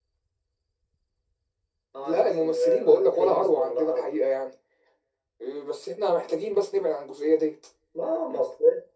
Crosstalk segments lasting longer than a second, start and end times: 2.0-4.1

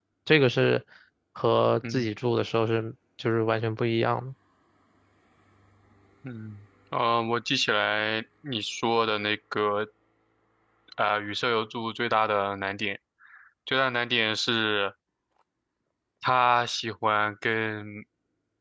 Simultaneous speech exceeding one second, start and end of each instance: none

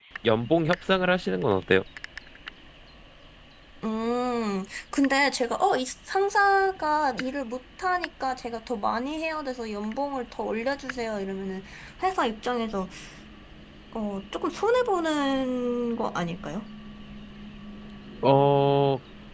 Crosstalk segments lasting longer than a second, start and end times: none

